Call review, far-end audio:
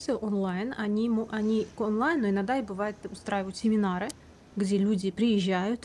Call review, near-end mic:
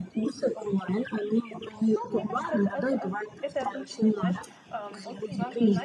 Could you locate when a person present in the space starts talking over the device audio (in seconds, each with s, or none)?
1.9 s